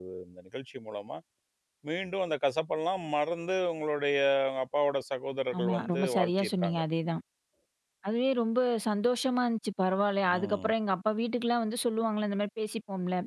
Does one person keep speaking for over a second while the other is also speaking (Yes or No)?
Yes